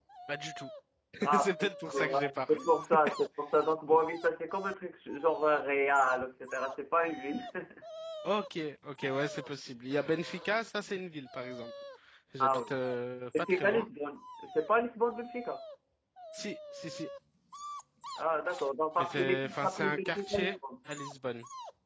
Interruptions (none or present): present